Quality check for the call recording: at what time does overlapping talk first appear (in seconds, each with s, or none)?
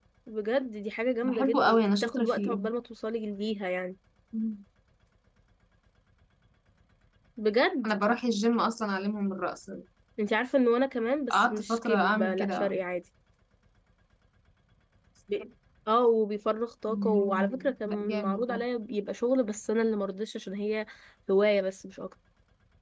1.2 s